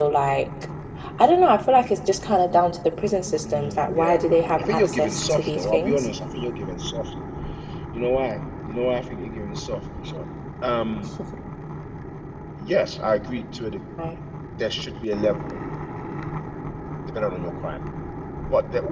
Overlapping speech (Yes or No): Yes